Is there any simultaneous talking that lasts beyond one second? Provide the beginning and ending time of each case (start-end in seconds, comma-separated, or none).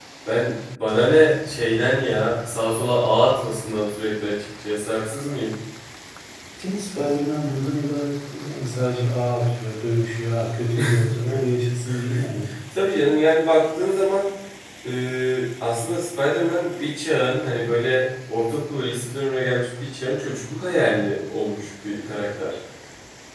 none